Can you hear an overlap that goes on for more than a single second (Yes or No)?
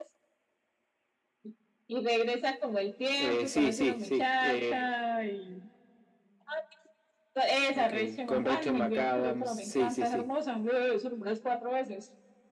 Yes